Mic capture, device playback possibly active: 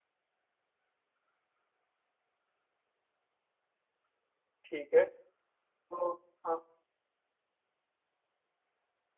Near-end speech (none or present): present